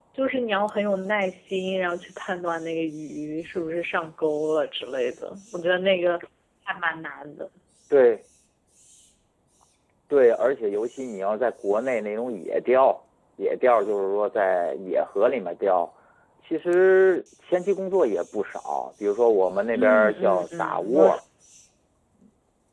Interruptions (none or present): present